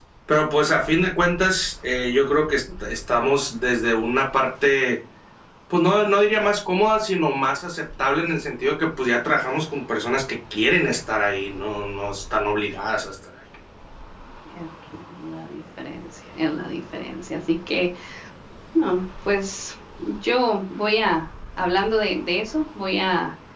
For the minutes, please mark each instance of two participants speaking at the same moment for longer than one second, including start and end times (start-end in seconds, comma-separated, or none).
none